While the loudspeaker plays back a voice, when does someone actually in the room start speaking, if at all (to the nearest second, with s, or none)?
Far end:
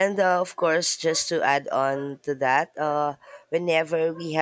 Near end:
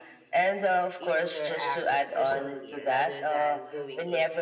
1 s